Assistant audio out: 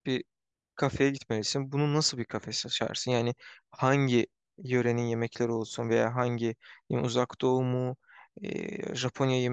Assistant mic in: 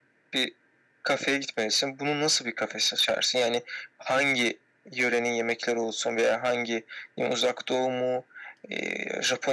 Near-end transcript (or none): none